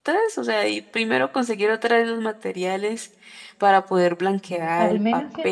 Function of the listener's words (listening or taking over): taking over